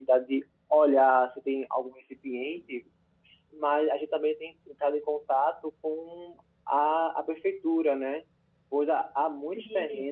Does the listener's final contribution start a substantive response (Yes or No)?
No